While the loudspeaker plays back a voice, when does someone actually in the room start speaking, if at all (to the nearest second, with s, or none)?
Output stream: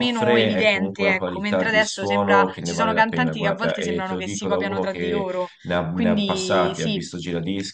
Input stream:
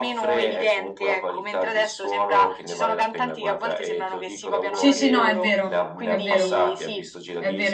5 s